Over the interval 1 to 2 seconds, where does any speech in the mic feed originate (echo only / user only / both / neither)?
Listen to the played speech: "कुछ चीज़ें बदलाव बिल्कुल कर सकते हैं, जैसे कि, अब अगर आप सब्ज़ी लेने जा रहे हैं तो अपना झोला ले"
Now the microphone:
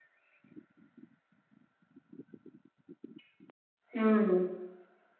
neither